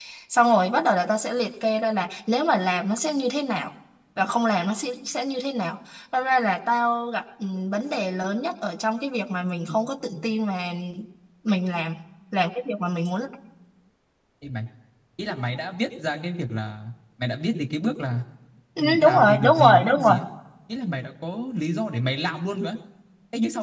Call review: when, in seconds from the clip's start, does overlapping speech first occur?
19 s

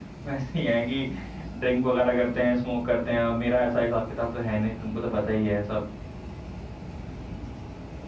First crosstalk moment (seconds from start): none

